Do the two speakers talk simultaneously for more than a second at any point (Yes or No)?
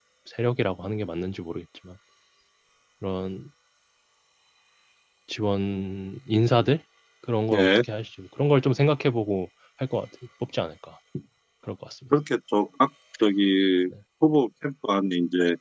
No